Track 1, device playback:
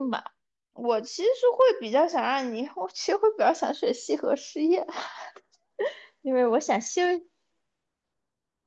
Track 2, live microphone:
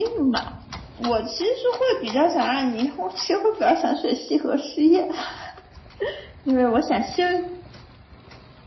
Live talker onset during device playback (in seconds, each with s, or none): none